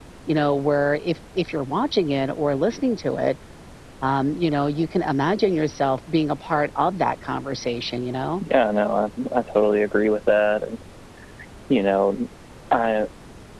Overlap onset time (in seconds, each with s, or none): none